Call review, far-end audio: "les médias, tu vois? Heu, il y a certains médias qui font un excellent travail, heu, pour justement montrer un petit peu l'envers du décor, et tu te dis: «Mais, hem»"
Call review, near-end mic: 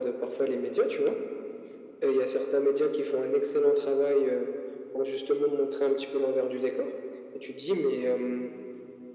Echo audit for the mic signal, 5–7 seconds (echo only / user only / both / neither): echo only